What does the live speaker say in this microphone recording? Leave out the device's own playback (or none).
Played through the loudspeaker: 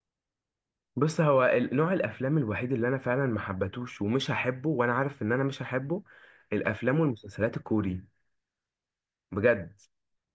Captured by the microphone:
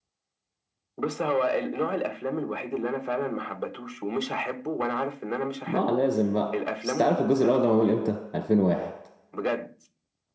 ما لازم بقى بس تعرف الجزء الاول ده معمول امتى 2001